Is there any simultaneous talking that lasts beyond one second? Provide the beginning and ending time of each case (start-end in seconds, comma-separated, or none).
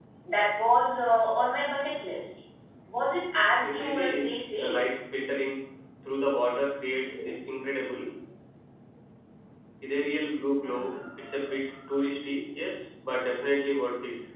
3.6-4.8